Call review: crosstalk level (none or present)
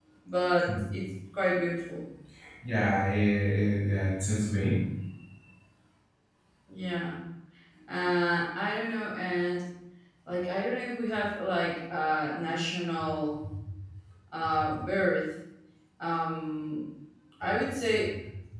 none